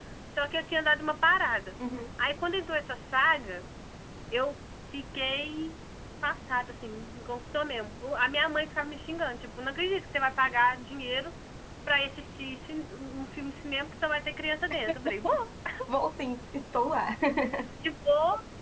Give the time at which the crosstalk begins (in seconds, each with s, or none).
none